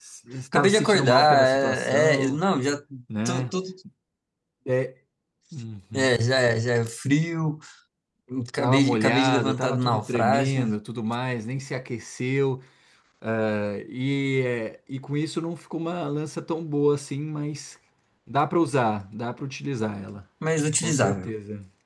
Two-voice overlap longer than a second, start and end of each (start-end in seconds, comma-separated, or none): 0.5-2.4, 8.6-10.7